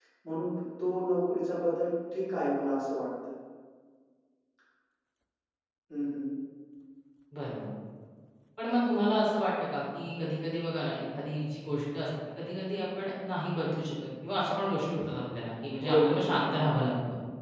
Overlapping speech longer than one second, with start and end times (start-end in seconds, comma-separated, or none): none